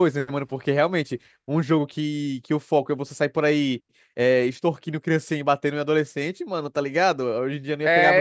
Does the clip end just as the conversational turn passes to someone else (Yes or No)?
Yes